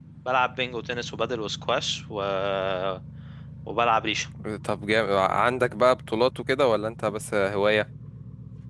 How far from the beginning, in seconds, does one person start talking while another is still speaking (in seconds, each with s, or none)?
none